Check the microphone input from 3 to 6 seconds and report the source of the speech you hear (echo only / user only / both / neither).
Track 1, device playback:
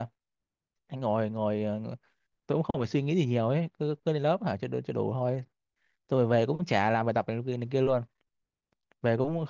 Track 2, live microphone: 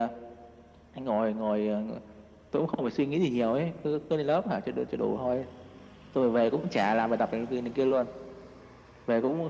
echo only